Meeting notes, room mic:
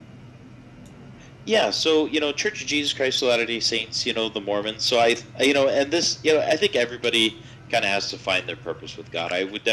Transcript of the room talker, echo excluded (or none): none